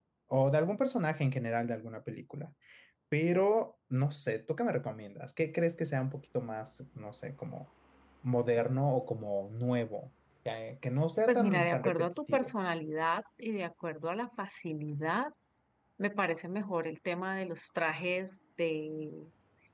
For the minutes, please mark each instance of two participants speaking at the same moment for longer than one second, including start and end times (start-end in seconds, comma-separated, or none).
11.3-12.5